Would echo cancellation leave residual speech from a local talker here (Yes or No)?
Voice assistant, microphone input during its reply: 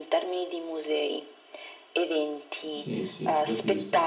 Yes